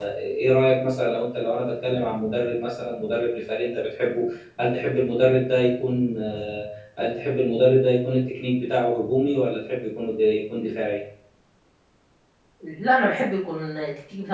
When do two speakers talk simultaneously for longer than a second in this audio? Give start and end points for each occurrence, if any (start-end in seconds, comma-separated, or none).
none